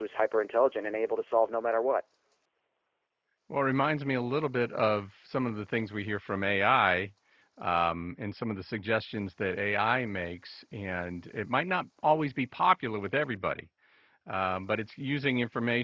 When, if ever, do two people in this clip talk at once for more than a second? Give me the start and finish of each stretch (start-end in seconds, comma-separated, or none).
none